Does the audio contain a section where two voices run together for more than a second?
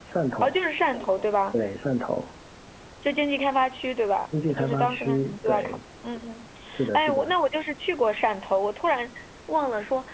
Yes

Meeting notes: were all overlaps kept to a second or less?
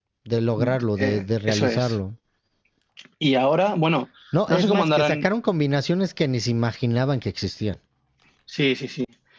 No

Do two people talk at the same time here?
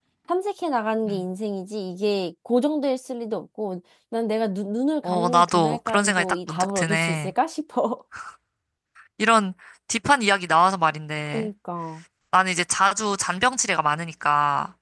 Yes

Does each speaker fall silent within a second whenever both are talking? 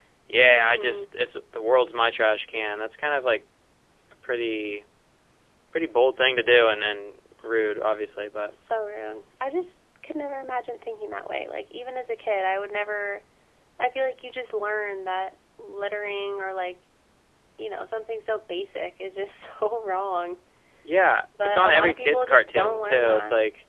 No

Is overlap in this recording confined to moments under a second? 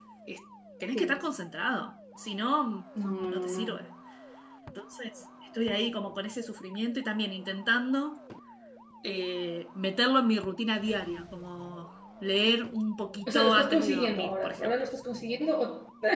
No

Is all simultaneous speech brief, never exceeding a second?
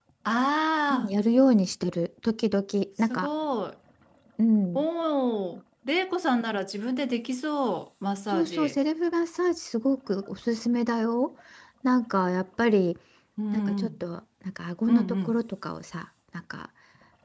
Yes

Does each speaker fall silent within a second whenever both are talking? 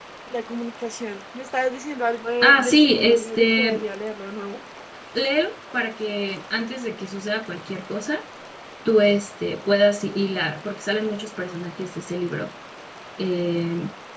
No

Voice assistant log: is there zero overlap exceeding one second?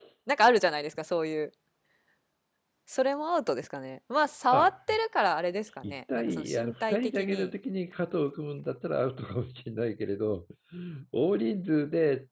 No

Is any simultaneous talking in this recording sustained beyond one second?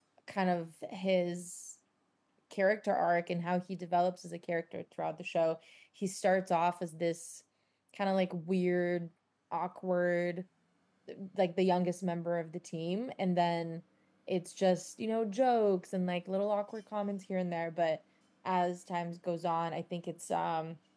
No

